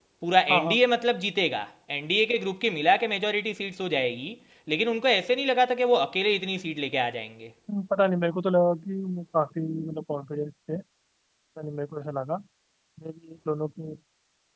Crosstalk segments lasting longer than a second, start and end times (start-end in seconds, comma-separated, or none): none